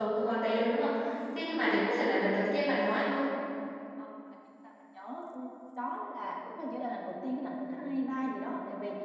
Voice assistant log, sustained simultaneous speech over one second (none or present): none